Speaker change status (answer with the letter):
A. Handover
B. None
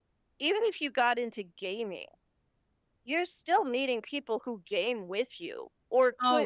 A